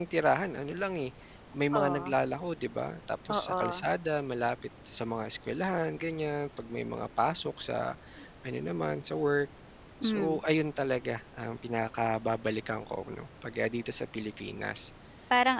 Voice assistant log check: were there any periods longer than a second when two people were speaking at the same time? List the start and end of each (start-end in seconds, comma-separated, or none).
none